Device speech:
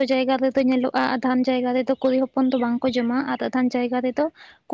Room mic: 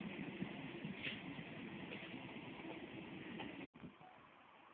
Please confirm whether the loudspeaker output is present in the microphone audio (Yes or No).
No